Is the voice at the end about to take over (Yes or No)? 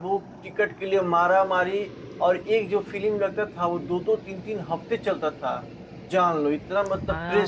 Yes